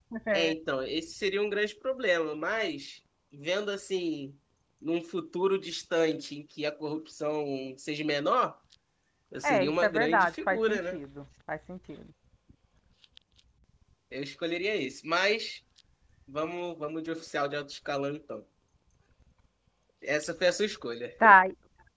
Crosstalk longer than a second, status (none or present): present